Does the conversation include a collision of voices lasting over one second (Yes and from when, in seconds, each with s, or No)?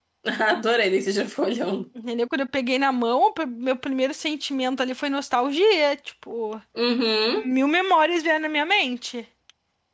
No